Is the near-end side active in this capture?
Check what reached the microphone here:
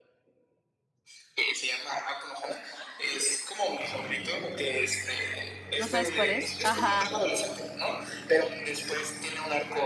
Yes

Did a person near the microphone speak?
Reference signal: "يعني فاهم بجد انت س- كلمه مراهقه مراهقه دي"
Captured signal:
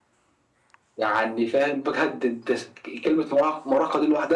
No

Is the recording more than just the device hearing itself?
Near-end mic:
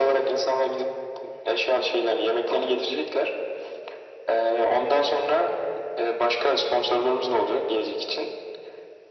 No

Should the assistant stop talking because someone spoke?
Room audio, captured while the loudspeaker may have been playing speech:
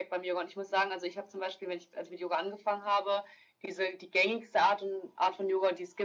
No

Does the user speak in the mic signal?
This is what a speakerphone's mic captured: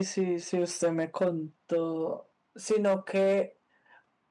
Yes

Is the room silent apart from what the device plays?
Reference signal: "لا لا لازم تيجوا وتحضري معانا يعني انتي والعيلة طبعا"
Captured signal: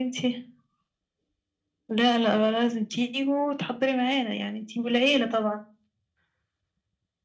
Yes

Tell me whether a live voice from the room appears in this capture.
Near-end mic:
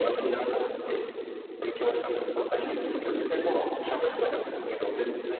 No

